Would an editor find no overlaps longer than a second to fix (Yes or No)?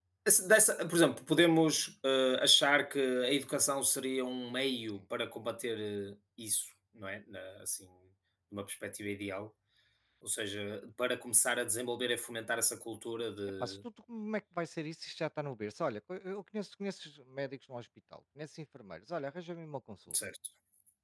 Yes